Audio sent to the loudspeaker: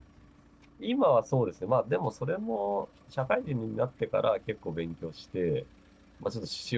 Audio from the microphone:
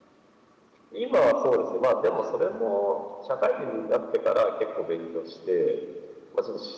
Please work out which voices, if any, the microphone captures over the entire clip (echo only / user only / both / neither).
echo only